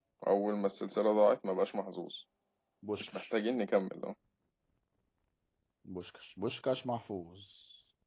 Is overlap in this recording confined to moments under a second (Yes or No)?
Yes